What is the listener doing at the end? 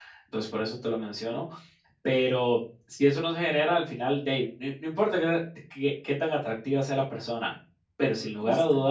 listening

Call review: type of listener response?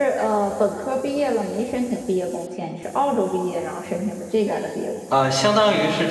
taking over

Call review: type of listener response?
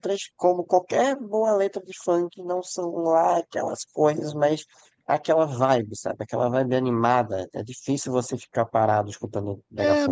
taking over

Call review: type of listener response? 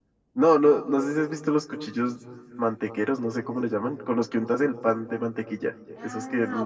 taking over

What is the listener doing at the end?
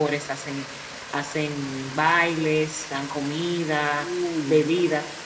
listening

